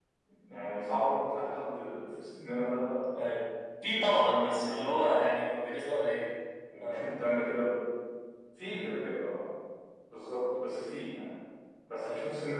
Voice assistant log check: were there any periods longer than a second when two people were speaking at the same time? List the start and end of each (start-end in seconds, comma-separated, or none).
3.9-5.4